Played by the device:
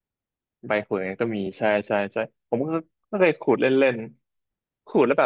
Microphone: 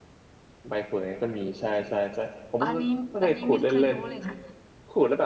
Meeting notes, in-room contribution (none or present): present